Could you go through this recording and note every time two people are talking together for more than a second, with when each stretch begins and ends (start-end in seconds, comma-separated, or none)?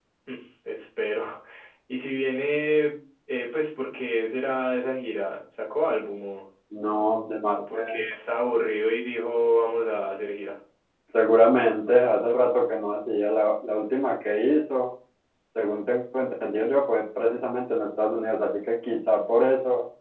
none